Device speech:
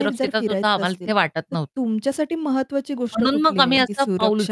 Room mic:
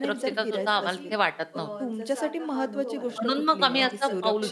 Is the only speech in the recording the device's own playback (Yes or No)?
No